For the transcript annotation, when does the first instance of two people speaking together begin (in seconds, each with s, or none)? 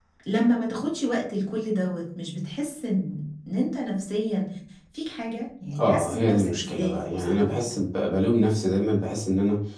5.8 s